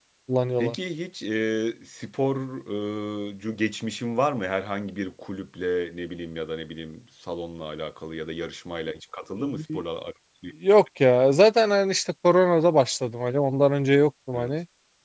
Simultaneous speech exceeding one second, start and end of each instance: none

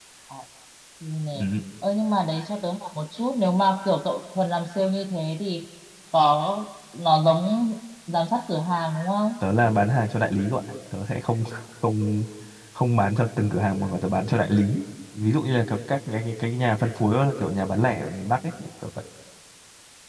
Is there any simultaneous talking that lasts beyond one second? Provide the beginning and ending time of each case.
none

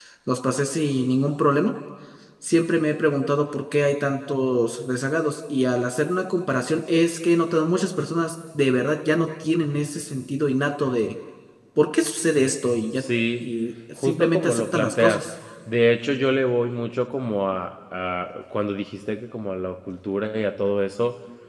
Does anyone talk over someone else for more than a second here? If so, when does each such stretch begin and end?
14.0-15.2

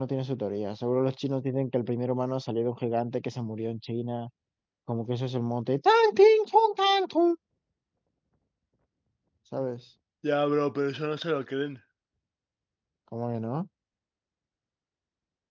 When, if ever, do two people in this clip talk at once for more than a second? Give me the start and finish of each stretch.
none

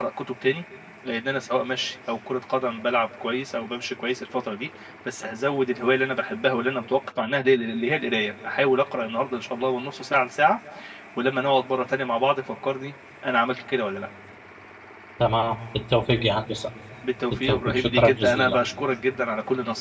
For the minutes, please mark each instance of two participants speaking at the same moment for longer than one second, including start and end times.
17.3-18.6

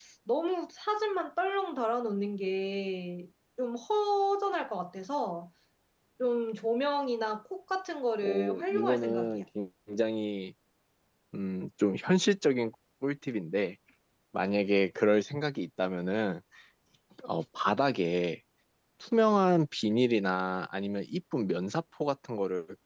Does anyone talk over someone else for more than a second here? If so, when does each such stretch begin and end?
8.2-9.4

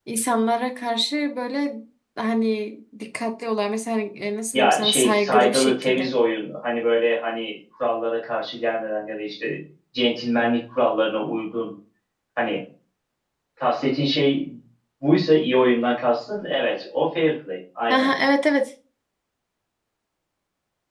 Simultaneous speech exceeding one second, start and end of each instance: 4.5-6.1

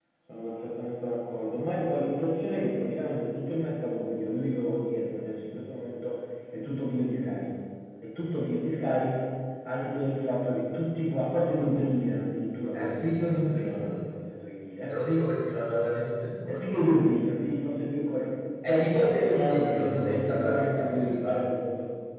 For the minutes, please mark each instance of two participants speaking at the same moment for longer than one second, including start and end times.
12.7-14.0, 18.7-21.4

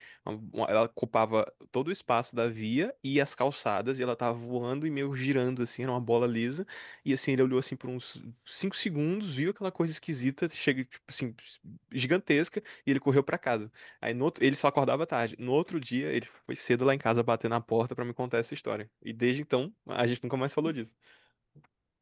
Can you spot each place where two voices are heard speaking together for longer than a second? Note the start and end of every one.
none

